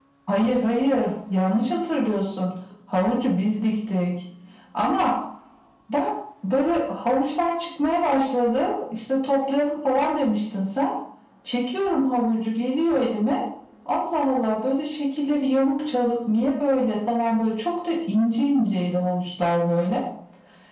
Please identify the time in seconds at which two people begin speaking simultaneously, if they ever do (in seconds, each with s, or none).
none